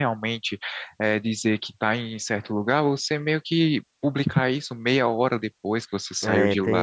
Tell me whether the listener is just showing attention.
No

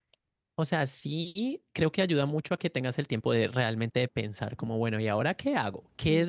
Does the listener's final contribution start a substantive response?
No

